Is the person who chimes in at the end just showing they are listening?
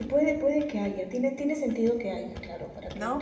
No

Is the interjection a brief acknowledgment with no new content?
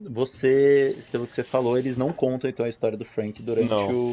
Yes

